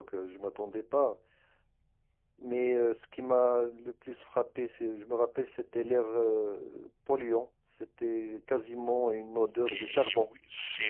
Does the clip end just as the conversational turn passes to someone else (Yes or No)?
Yes